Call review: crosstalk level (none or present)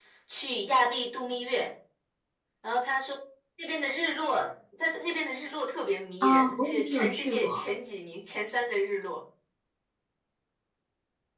present